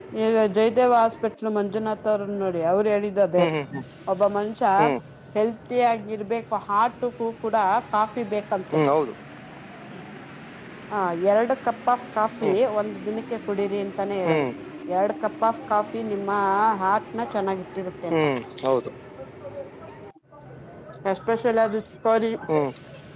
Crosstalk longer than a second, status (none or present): none